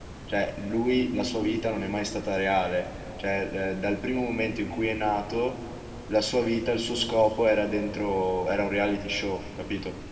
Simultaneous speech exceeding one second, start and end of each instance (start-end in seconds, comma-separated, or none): none